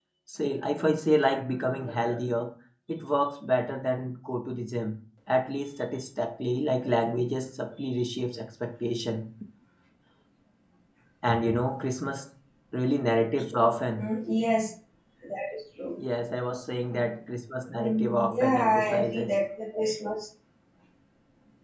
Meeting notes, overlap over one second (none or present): present